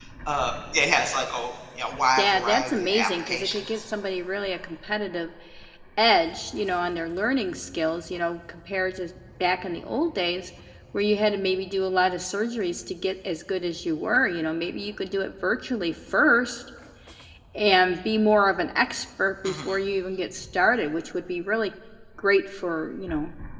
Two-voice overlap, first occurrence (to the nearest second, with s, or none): 2 s